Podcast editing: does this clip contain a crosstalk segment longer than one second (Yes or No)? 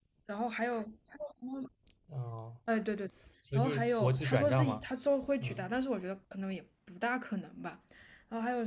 Yes